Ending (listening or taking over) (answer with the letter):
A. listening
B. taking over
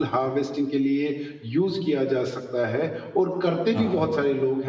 A